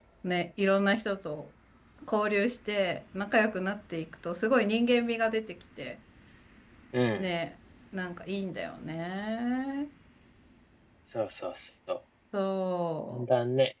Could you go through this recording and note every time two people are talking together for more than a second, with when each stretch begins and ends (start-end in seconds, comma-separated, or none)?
none